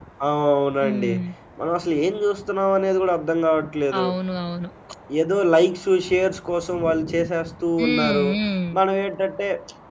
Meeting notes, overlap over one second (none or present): none